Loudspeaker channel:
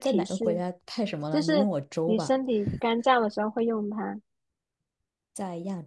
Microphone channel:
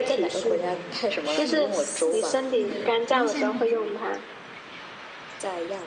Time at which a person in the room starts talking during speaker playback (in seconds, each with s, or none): 0.4 s